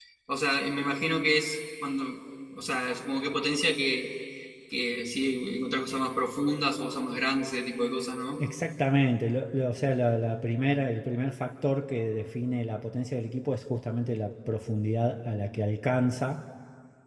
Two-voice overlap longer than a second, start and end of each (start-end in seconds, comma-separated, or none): none